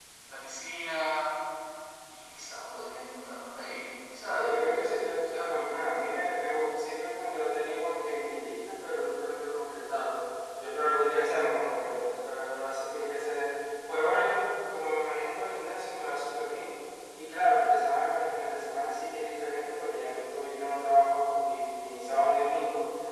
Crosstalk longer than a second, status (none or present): none